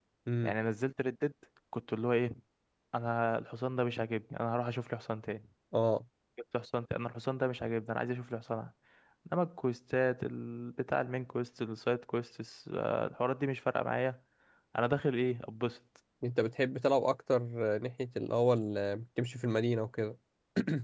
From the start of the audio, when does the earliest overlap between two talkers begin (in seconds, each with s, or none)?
none